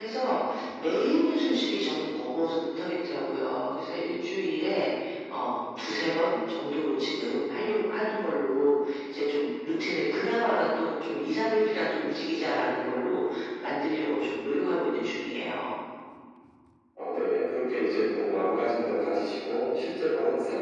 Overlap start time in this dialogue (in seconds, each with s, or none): none